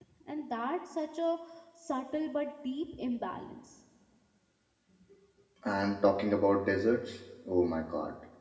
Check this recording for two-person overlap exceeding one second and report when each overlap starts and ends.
none

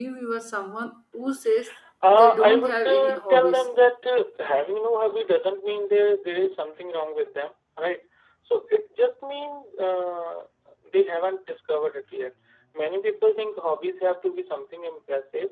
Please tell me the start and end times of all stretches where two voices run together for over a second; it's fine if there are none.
2.2-3.7

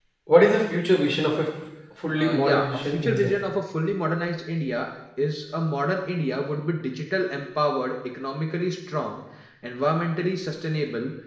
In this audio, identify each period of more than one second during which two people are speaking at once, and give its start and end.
2.1-3.3

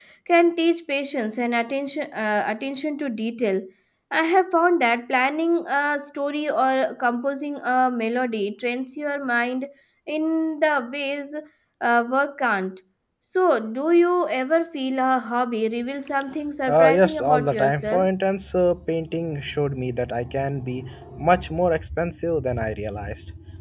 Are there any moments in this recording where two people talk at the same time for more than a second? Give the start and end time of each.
16.7-18.1

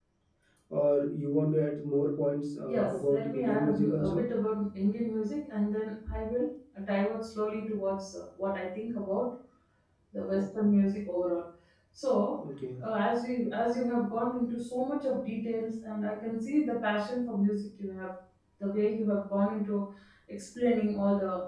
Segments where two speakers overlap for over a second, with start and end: 2.6-4.3

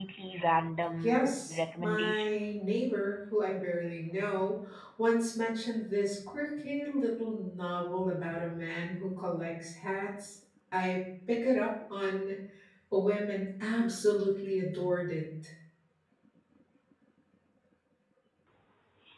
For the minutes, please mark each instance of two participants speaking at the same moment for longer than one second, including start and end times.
1.0-2.4

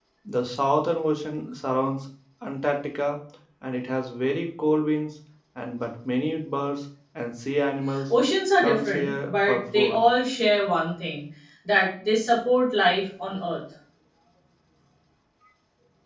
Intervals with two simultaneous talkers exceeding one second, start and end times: 8.6-10.0

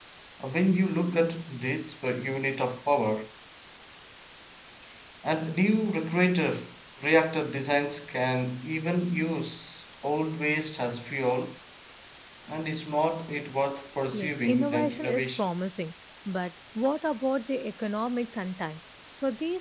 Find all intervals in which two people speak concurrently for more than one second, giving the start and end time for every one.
14.1-15.5

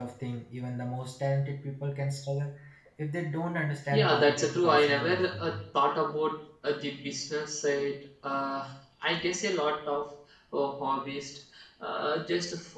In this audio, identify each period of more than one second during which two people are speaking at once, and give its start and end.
3.9-5.6

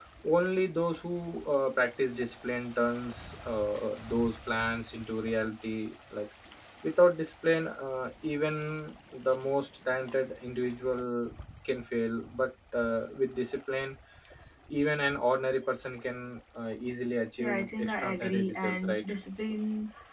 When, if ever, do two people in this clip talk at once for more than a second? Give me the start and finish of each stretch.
17.4-19.1

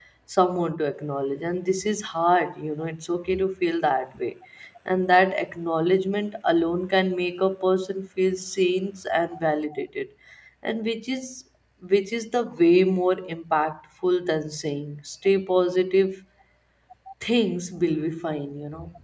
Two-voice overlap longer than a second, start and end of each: none

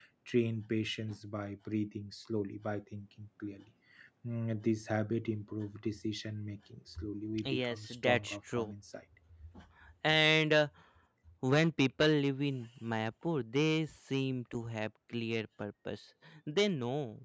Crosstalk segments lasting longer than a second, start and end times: 7.4-8.7

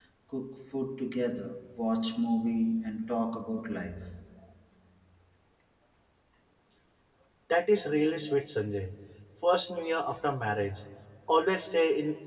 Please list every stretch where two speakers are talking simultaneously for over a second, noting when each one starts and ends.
none

